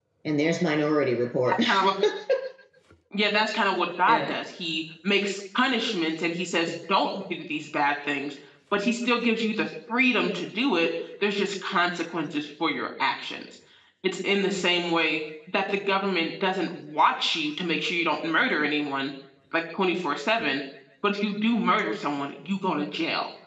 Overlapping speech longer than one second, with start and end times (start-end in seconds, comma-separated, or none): none